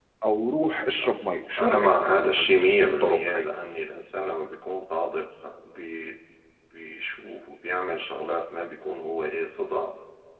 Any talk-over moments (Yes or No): Yes